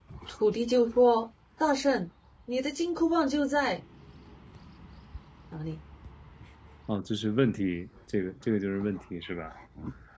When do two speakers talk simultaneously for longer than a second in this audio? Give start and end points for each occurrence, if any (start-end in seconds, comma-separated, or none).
none